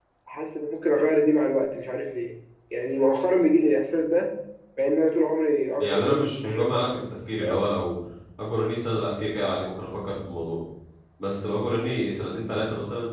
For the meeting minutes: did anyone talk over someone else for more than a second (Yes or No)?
Yes